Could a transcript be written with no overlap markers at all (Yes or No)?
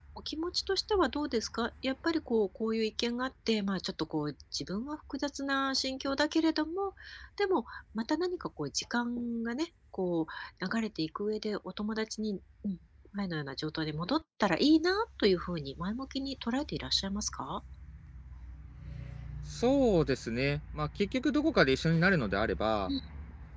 Yes